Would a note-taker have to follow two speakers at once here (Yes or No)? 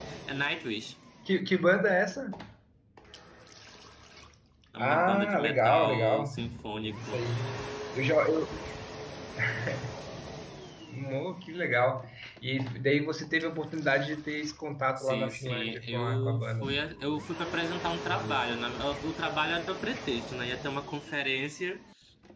Yes